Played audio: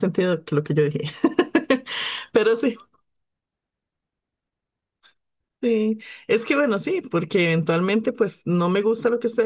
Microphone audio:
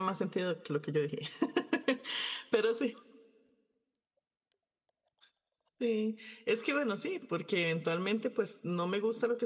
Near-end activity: none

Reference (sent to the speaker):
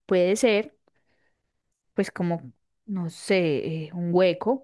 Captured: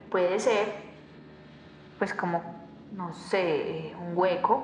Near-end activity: none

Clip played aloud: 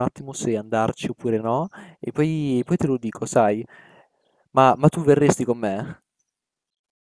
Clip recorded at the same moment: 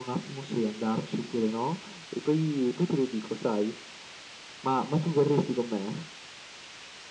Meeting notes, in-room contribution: none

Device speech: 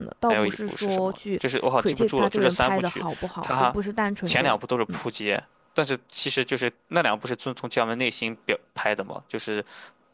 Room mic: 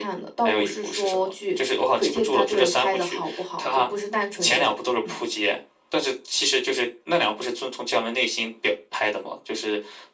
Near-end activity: none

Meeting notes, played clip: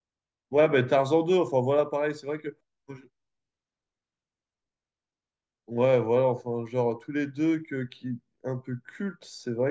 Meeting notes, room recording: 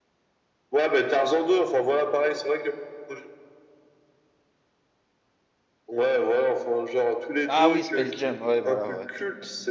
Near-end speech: present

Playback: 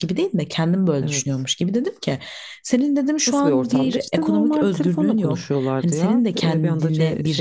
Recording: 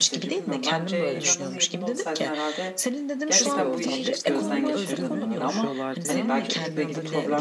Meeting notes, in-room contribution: present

